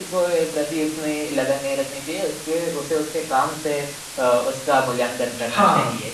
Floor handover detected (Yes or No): Yes